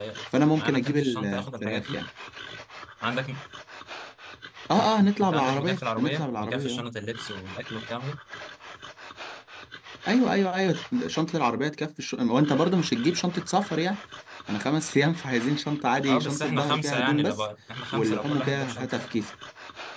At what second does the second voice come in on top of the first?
0.6 s

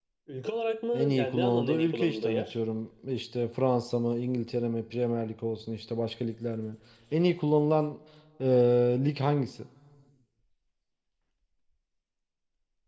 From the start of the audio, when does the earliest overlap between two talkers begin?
0.9 s

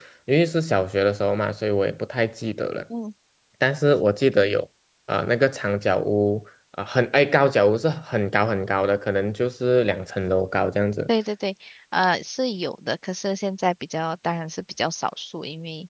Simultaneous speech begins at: none

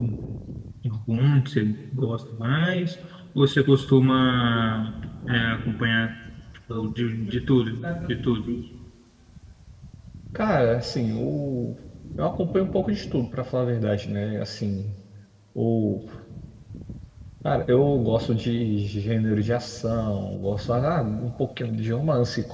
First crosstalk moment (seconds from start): none

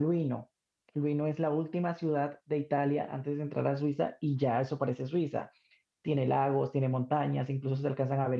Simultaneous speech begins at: none

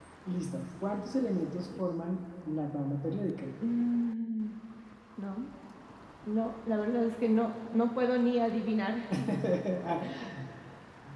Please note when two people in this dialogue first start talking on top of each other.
none

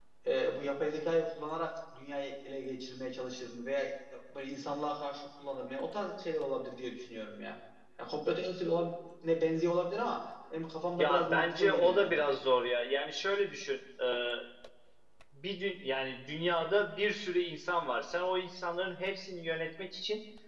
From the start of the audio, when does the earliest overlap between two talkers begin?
11.0 s

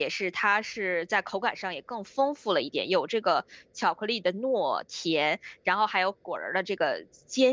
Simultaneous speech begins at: none

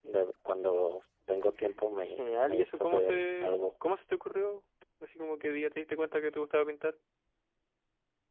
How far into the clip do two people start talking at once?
2.2 s

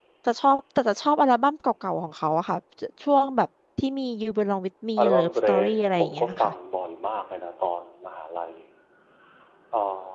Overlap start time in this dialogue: 5.0 s

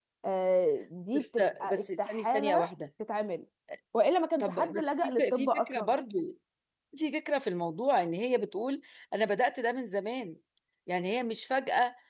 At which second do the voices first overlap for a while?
1.1 s

